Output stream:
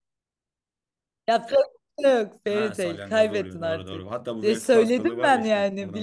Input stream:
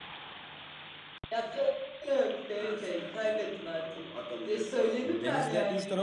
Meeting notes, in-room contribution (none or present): present